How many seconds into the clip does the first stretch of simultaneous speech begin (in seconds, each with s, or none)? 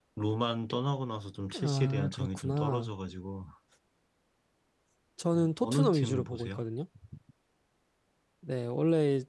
1.6 s